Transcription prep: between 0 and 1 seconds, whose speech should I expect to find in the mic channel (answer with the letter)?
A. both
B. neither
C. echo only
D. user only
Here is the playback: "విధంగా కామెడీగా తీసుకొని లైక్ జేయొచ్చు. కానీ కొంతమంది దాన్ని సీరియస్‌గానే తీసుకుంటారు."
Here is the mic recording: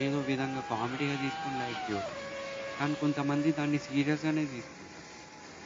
C